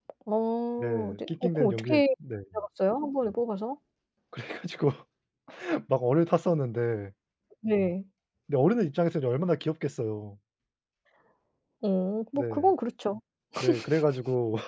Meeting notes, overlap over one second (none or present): present